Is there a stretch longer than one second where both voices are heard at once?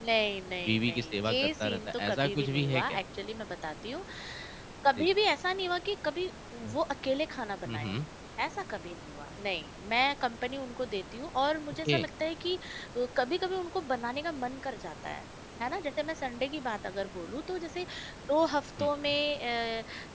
Yes, from 0.6 s

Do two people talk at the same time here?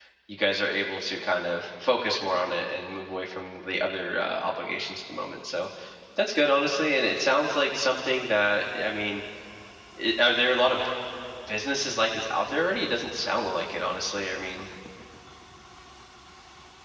No

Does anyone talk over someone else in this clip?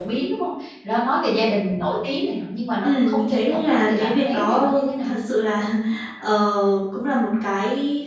Yes, from 2.8 s

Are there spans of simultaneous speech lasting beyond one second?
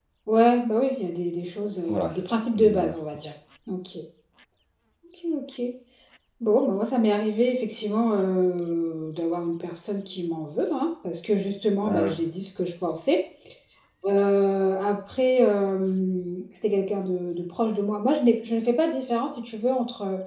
Yes, from 1.9 s

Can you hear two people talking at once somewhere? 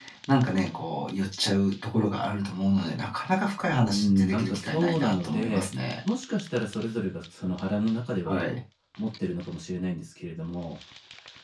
Yes, from 3.9 s

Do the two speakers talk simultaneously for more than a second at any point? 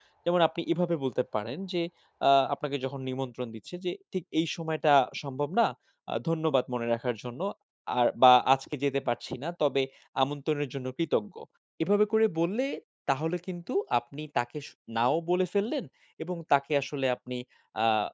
No

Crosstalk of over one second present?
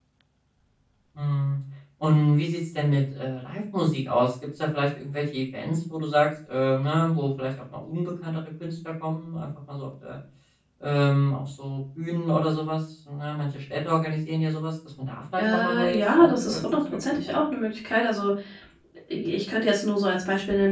Yes, from 15.4 s

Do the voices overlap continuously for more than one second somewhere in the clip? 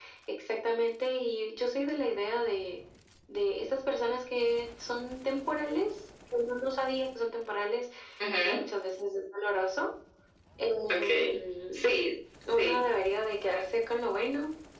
No

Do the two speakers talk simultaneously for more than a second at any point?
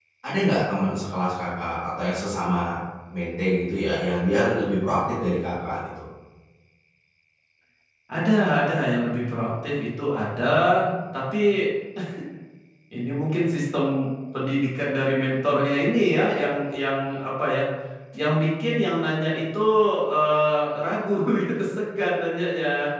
No

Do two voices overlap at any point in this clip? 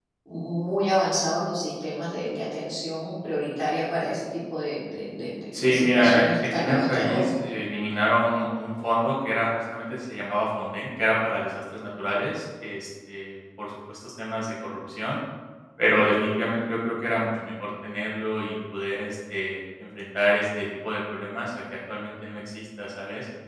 Yes, from 5.5 s

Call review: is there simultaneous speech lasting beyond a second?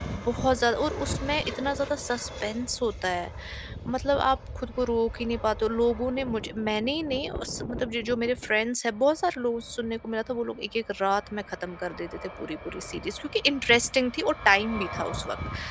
No

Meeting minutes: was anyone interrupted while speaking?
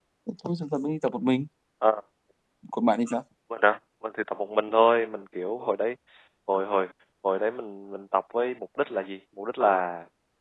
No

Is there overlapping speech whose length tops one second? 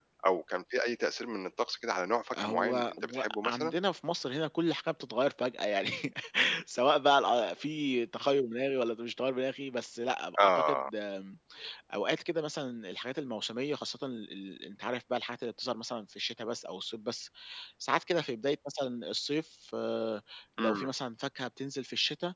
Yes, from 2.4 s

